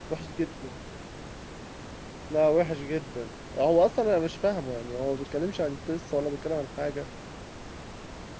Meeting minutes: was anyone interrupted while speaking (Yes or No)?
No